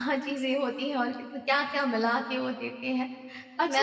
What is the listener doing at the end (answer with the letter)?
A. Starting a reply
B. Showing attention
A